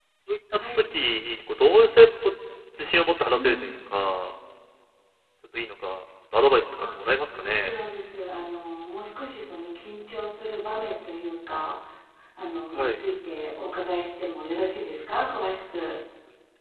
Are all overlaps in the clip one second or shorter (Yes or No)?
Yes